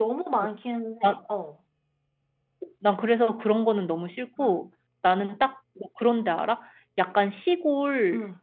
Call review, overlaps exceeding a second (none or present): none